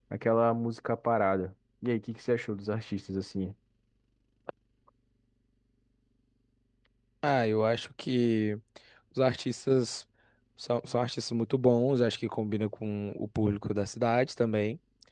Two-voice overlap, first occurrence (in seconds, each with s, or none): none